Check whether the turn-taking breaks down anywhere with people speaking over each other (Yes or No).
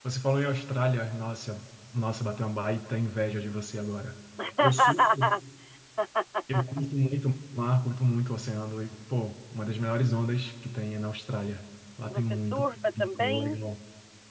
Yes